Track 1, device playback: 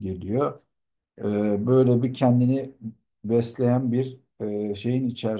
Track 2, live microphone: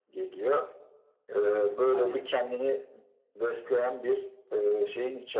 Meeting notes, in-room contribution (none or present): present